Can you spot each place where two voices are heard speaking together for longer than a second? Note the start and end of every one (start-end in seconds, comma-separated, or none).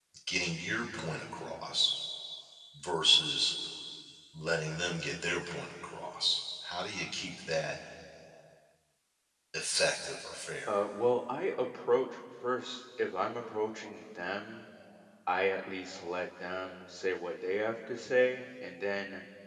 none